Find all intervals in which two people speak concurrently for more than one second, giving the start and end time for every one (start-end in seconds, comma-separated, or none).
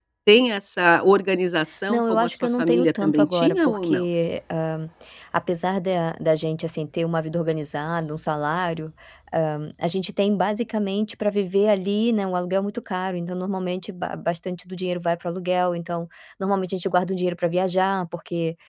1.9-4.0